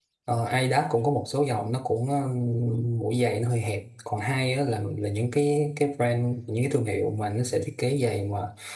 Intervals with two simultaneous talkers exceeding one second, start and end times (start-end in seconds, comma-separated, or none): none